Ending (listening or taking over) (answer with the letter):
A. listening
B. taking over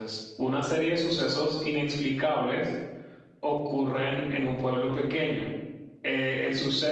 A